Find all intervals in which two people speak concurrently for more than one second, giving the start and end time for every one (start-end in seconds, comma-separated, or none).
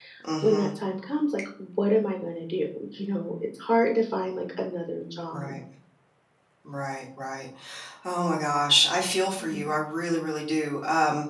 none